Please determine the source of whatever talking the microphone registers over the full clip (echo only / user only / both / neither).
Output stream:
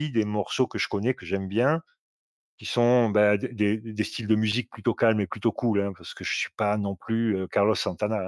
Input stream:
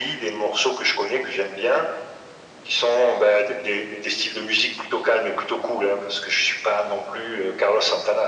echo only